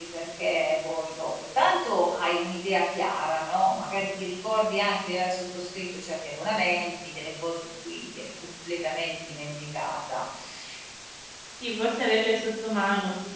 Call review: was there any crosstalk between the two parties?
No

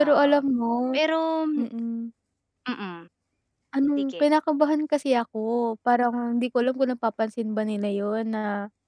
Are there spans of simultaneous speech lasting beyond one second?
No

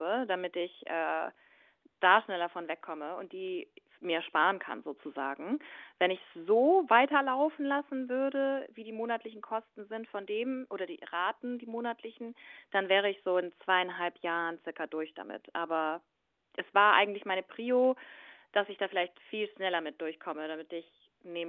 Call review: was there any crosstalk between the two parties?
No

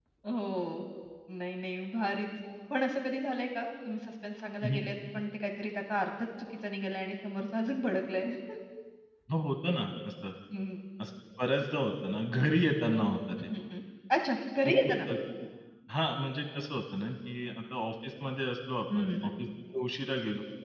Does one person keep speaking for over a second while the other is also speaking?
No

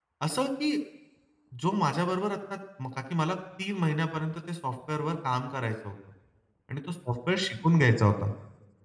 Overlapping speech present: No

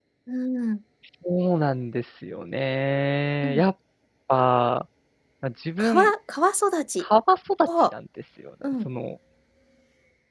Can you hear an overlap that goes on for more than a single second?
No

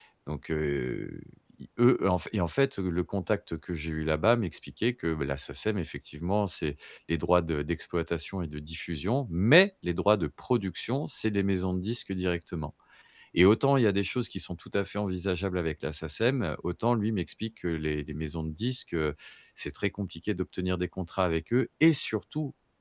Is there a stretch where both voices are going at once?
No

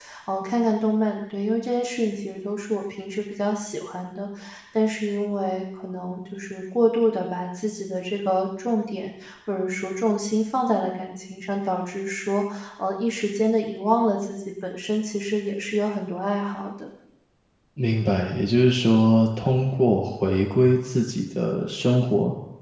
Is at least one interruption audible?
No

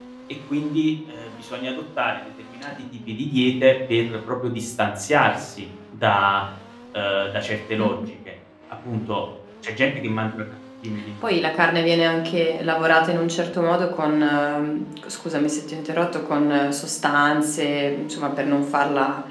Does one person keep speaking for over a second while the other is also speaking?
No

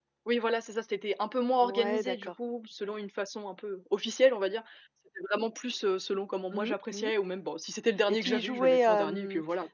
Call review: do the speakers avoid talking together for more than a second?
No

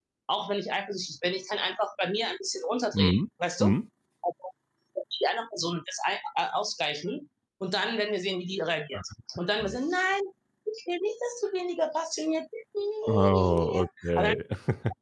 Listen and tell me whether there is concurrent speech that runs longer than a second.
Yes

